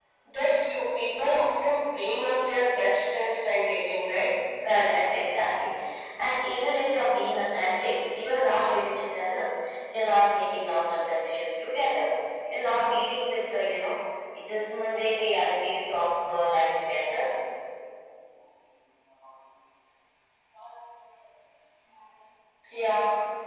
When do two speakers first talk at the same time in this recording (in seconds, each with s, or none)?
none